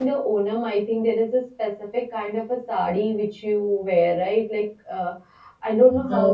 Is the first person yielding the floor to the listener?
No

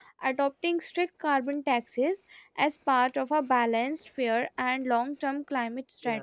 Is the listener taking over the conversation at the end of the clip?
Yes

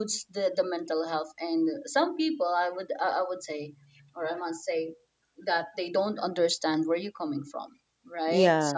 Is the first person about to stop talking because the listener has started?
No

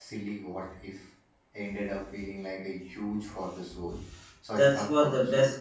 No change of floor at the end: No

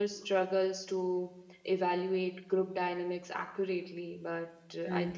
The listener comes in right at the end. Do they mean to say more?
No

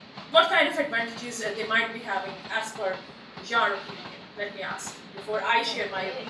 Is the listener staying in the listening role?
No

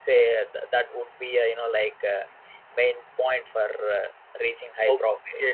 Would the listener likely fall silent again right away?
No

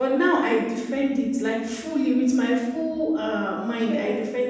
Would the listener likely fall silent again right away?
Yes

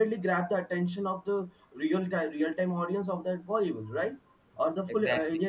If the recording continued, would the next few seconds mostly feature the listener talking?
No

